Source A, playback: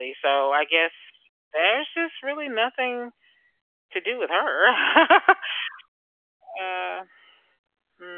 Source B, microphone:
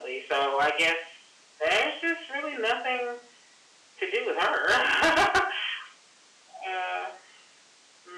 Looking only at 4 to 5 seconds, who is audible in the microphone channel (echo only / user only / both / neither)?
echo only